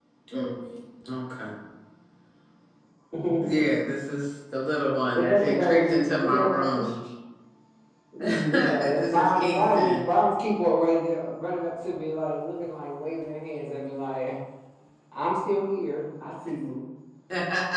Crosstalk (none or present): present